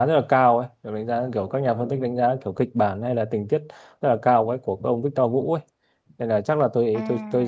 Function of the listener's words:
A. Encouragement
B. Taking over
A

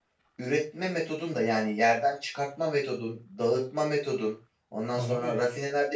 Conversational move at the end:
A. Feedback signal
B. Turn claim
A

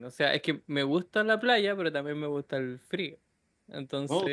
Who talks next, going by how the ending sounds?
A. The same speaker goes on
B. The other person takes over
A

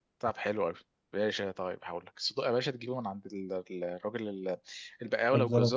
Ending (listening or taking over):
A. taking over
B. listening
B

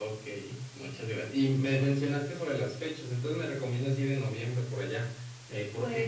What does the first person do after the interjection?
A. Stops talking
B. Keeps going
A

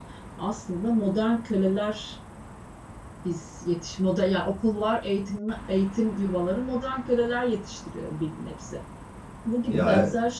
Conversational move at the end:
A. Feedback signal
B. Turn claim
A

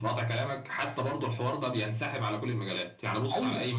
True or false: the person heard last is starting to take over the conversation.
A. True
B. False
B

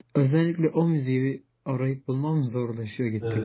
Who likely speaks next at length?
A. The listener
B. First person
A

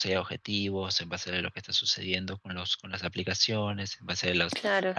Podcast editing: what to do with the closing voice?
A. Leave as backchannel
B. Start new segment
A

